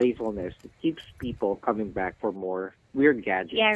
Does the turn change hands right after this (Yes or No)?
Yes